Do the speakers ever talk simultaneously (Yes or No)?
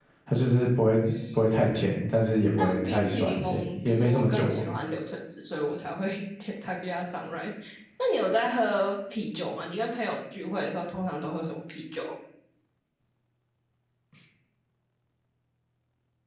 Yes